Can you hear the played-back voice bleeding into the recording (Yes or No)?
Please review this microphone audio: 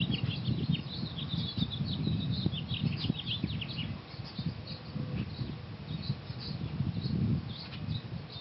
No